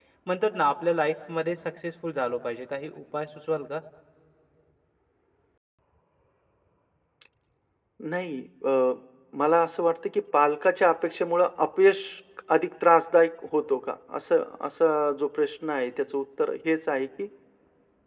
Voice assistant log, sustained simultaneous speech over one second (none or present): none